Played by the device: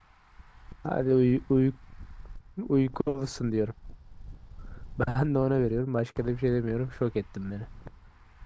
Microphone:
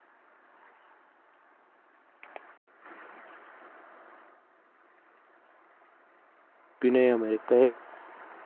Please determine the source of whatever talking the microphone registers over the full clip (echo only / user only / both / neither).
user only